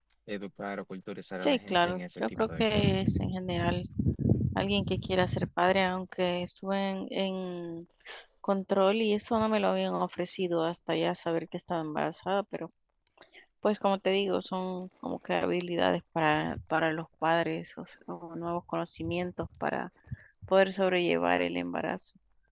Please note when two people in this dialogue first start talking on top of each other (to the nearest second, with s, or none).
1 s